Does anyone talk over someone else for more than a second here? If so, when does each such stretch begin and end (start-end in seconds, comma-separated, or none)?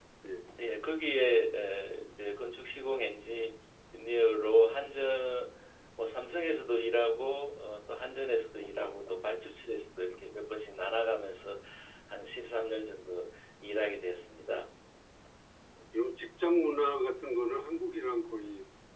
none